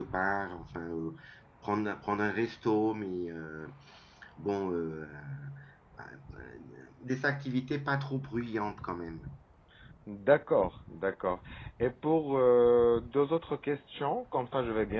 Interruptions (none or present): none